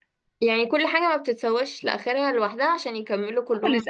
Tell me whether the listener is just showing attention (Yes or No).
No